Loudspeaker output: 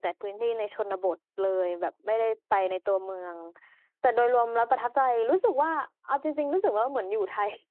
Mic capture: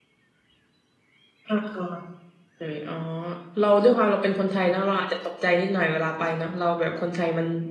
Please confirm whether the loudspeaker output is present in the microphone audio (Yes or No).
No